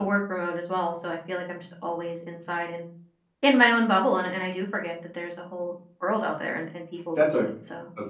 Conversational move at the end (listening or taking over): taking over